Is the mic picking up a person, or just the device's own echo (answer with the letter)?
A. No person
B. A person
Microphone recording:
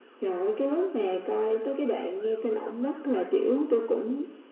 A